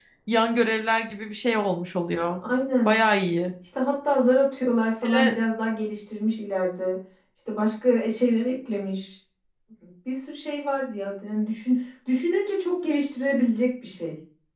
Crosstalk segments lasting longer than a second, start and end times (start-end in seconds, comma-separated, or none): none